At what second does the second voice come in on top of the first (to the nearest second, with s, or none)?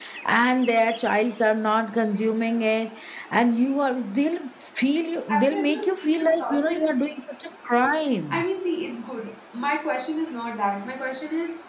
5 s